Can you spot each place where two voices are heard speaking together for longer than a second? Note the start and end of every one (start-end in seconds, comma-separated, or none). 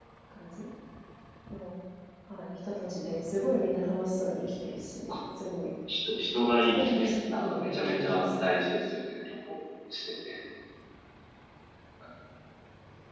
6.6-8.3